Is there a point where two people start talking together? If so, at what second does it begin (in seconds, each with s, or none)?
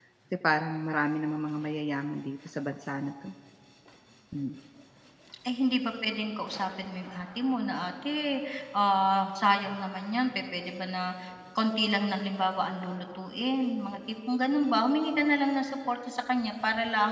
none